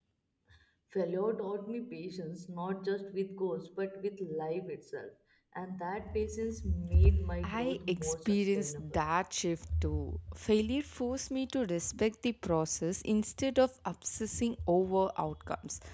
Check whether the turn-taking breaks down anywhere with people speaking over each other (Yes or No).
Yes